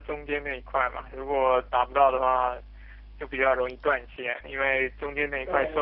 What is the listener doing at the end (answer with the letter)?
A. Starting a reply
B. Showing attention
B